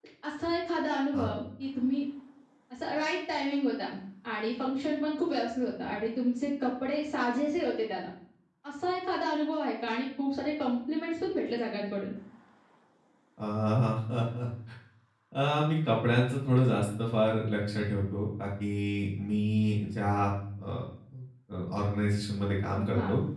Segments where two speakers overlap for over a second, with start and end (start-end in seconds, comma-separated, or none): none